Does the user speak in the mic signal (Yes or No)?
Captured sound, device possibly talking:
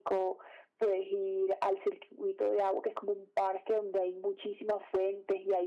No